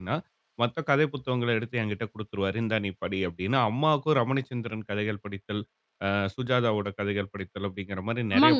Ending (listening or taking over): taking over